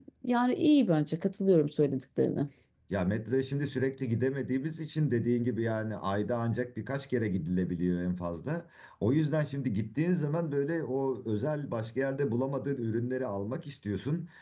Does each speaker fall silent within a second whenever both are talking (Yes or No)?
Yes